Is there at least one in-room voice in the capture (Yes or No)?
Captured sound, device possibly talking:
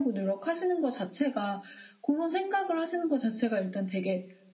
No